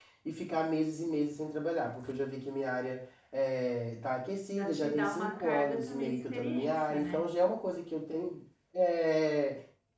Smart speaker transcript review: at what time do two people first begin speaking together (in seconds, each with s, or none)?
4.5 s